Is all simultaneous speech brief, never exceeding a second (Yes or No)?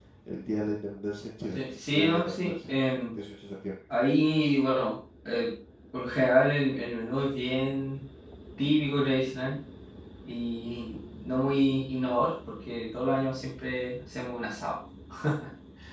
No